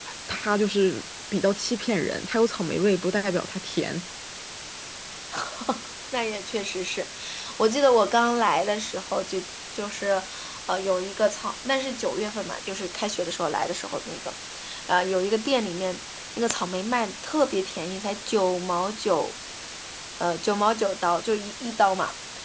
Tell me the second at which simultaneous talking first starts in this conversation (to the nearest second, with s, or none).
none